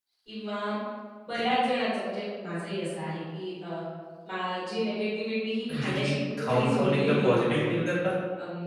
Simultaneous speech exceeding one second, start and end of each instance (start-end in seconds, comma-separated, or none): 5.7-7.7